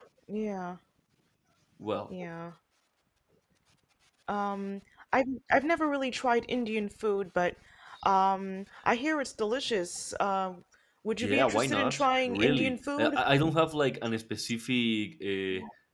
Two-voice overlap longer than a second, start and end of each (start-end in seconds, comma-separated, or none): 11.2-13.2